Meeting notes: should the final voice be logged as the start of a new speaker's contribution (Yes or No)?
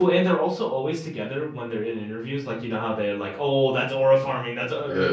Yes